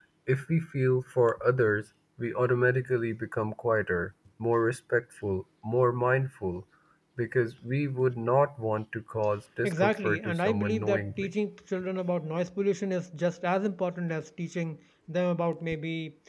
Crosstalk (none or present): present